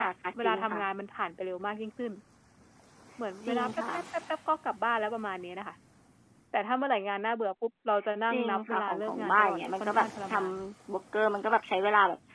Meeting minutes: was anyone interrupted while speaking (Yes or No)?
Yes